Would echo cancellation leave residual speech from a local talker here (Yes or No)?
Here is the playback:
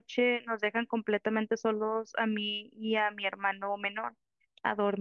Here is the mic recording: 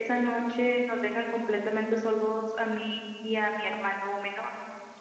No